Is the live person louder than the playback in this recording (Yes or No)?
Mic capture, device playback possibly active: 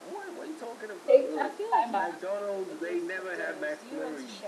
Yes